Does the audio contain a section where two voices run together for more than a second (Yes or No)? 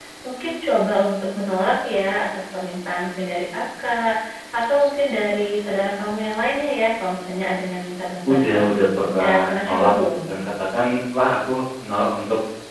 Yes